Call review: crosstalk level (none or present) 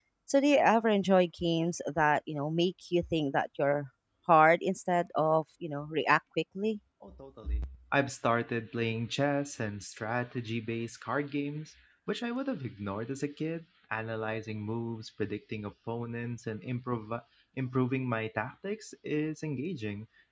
none